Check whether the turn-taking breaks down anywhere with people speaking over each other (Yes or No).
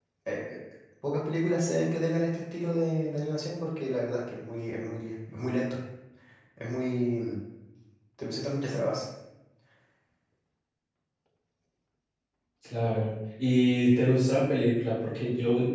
No